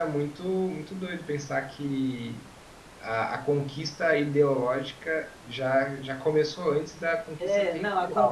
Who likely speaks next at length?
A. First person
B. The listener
B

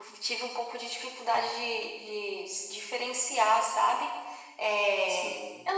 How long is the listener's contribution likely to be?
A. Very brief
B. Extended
A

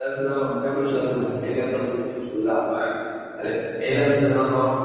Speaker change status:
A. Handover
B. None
B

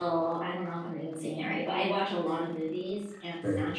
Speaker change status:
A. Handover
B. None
B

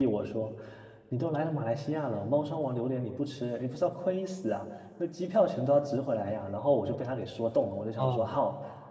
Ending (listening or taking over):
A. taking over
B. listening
B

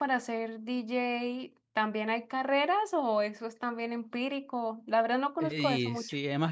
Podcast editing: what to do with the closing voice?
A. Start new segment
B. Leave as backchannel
A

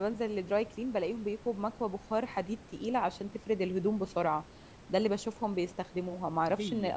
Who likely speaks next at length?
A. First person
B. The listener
A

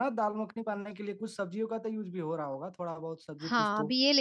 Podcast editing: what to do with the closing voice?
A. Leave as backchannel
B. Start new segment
B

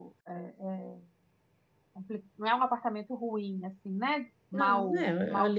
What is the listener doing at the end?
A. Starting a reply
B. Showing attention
A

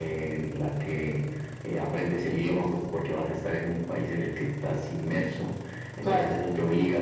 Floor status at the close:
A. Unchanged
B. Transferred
A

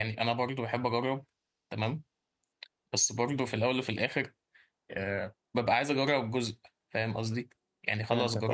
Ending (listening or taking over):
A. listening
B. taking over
A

